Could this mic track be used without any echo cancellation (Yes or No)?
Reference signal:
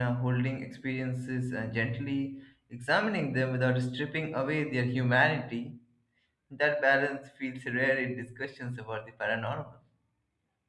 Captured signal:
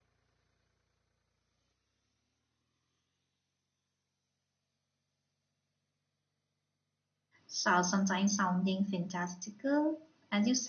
Yes